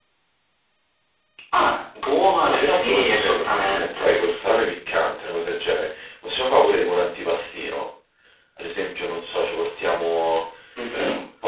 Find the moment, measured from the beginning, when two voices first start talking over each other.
2.4 s

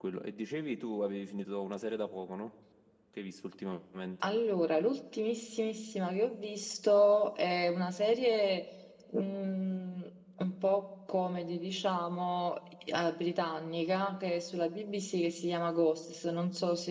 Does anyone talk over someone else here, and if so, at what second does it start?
none

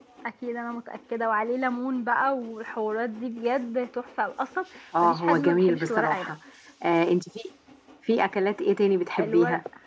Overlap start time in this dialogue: 5.0 s

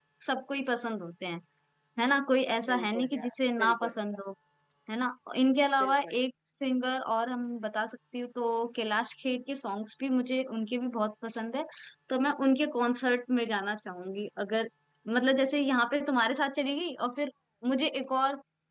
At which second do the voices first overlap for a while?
2.7 s

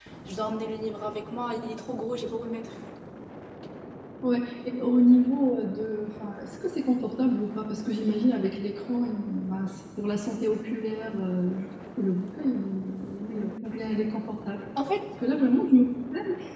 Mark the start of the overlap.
none

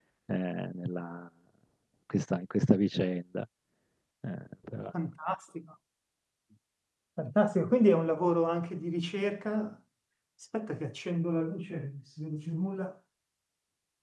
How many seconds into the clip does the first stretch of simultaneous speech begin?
none

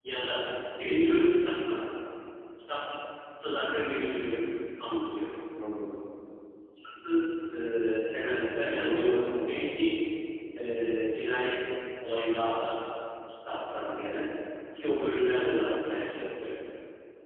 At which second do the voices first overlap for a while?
8.7 s

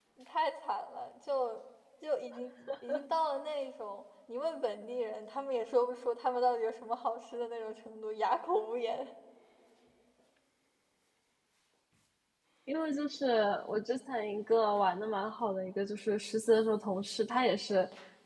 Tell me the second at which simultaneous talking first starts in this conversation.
none

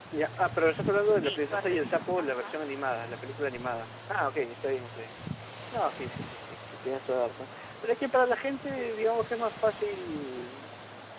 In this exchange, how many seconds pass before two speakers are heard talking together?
1.1 s

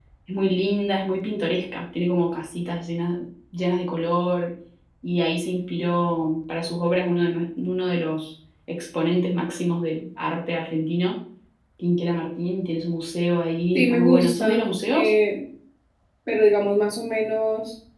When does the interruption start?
13.8 s

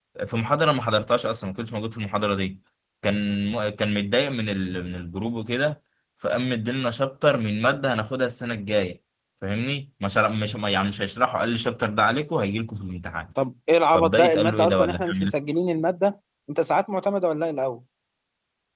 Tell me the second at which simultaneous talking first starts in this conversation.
13.9 s

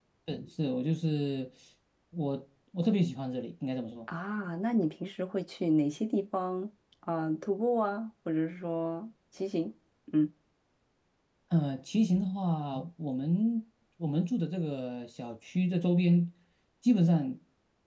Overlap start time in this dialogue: none

